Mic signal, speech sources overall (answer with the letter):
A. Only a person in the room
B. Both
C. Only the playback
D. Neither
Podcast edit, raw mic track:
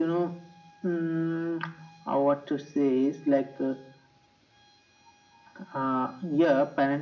C